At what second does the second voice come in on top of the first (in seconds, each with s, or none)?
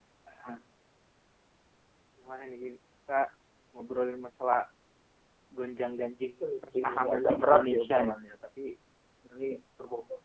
6.4 s